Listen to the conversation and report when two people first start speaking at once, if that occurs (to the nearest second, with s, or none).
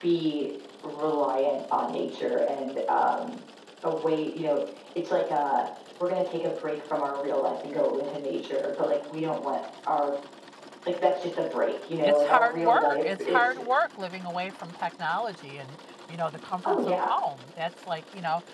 12 s